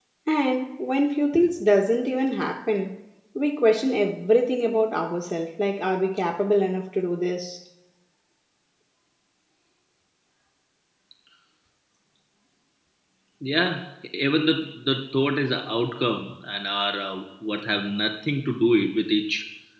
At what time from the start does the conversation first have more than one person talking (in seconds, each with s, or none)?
none